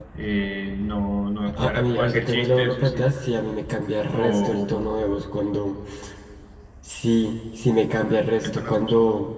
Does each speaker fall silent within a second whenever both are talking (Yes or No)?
No